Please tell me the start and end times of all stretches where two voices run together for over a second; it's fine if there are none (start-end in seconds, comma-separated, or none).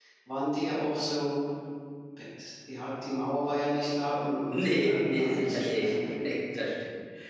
4.5-5.9